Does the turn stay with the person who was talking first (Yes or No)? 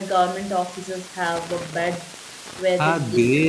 No